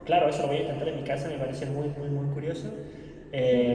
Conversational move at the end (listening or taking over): taking over